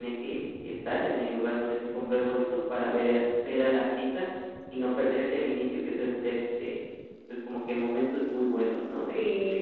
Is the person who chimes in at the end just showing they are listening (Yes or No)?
No